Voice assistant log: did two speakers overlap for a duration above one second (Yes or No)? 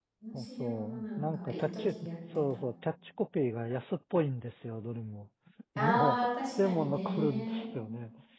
Yes